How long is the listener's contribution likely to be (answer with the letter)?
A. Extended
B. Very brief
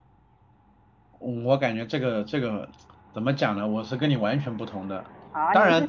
A